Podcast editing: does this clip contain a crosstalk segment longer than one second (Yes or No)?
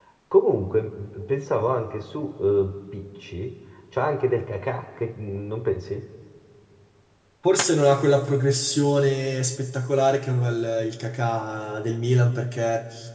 No